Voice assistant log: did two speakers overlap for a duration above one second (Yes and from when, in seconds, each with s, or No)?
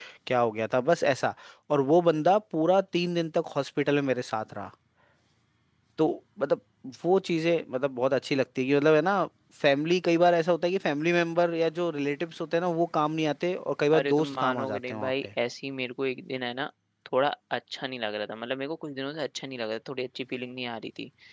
Yes, from 13.9 s